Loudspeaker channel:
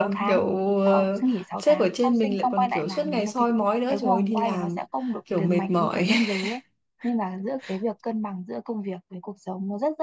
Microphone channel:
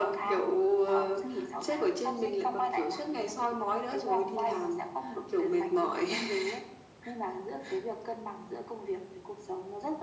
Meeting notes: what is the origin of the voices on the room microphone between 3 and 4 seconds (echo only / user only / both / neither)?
echo only